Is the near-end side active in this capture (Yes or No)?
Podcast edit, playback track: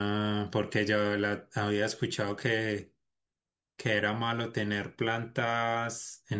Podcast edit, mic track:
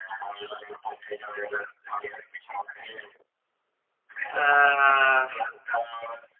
Yes